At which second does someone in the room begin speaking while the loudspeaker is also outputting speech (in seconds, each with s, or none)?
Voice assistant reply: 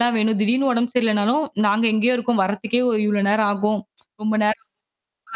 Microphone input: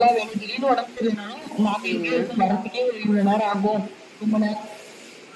1.8 s